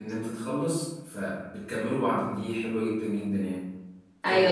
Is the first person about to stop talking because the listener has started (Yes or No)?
Yes